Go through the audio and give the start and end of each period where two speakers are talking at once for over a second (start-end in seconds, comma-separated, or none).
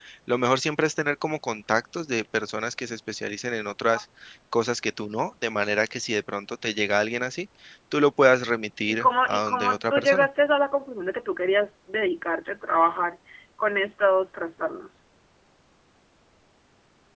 8.9-10.3